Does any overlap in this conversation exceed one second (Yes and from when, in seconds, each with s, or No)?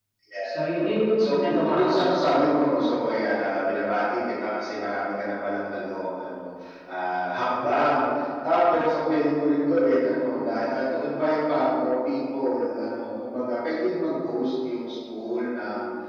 Yes, from 1.2 s